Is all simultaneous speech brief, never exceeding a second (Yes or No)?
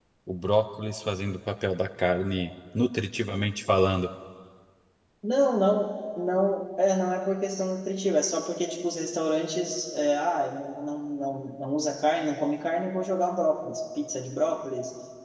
Yes